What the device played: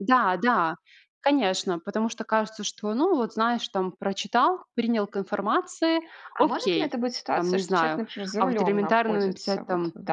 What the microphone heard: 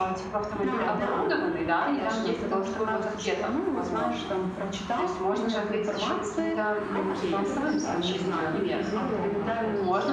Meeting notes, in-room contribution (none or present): present